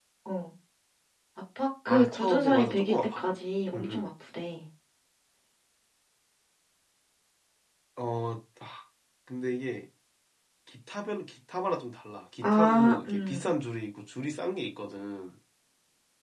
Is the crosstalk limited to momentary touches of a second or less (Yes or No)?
No